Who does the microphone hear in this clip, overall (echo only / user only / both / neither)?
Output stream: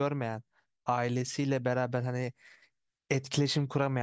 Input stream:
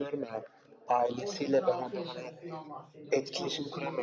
both